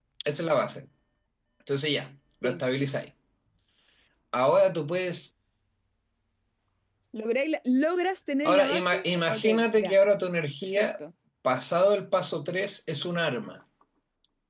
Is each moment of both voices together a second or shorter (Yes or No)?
No